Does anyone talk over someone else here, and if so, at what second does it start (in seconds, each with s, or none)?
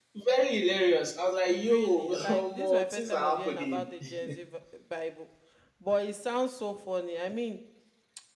1.5 s